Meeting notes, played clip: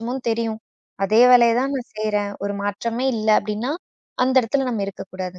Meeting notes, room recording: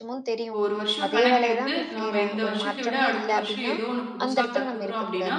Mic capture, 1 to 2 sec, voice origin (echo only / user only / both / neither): both